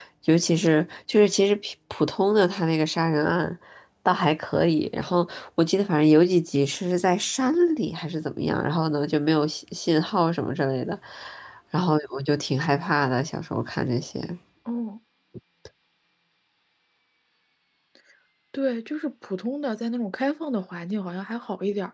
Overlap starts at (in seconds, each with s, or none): none